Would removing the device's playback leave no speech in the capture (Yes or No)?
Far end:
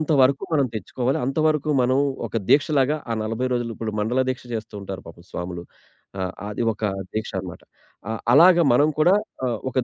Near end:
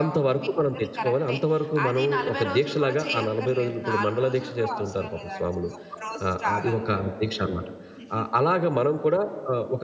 No